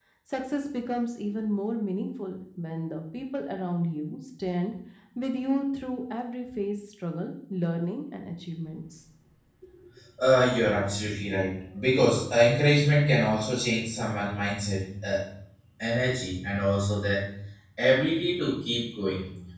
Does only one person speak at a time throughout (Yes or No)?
Yes